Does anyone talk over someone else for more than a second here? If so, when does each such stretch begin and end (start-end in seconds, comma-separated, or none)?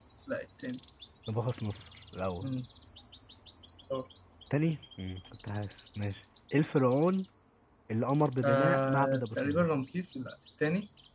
8.4-9.7